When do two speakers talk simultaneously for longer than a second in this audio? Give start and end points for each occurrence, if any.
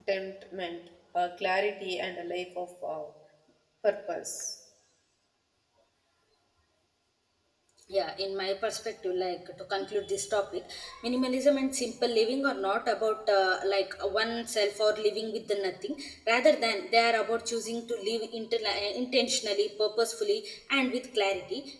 none

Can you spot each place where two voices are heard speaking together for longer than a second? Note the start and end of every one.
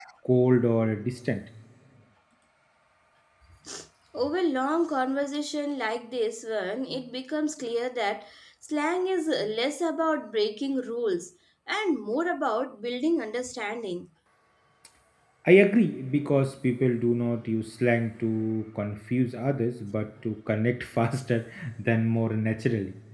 none

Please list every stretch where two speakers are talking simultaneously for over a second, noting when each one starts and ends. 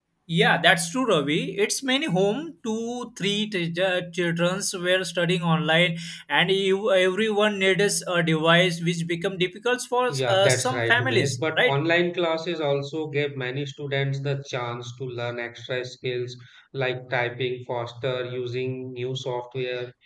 10.2-11.8

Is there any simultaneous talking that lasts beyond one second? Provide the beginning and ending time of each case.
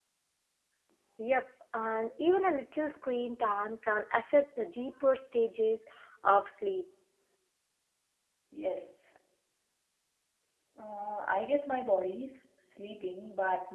none

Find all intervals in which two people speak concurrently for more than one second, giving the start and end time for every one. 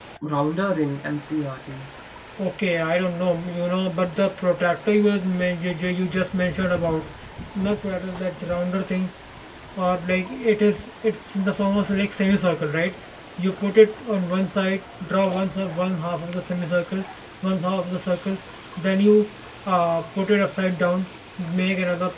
none

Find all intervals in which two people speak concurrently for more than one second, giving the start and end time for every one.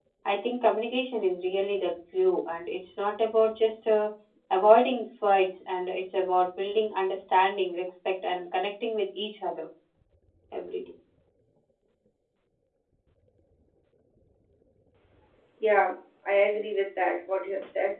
none

